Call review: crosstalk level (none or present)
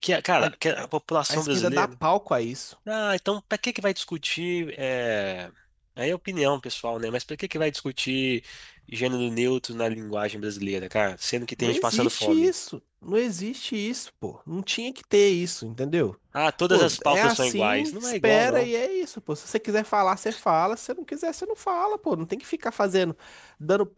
present